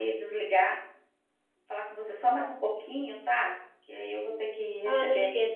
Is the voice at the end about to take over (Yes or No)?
Yes